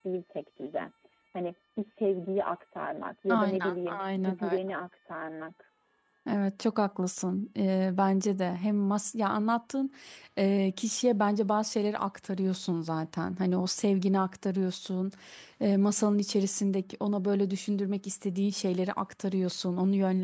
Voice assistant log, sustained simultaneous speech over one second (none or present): present